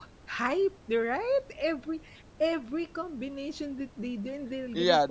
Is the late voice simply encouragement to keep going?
No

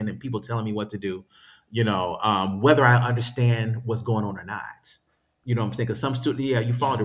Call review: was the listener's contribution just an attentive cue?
Yes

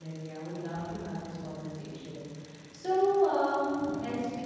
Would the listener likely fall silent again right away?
Yes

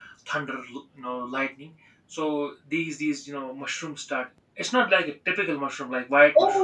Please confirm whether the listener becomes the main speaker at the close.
Yes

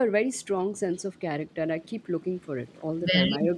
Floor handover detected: Yes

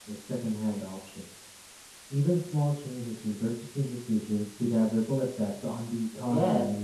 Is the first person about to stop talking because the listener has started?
Yes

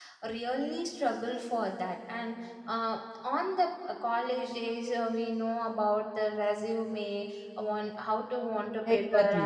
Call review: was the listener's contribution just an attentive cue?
Yes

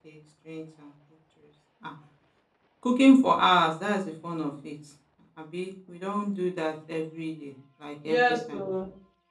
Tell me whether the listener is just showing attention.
No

